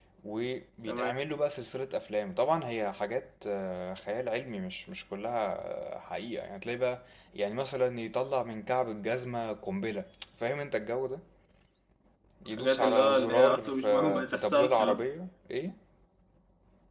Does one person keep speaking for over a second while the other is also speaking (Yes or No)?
Yes